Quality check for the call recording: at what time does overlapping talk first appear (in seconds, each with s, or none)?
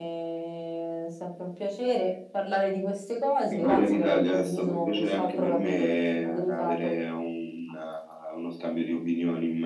3.5 s